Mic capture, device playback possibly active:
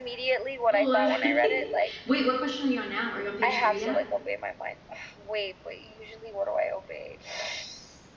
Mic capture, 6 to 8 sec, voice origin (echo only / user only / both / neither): echo only